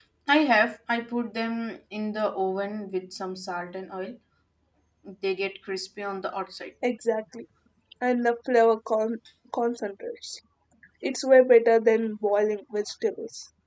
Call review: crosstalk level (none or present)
none